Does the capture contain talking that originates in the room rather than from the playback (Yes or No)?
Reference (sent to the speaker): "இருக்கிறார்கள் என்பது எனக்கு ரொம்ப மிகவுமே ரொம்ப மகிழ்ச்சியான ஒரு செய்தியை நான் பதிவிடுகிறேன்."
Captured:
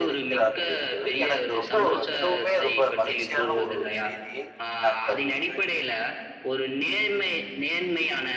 Yes